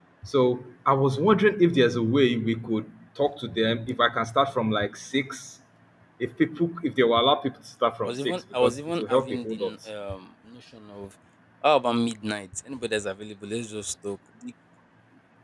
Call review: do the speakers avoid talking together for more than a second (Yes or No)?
No